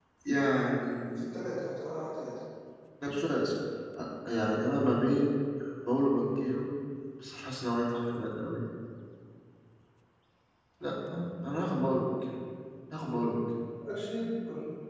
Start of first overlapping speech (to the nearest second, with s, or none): none